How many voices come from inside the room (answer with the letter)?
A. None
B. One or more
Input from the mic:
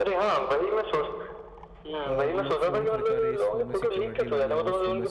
B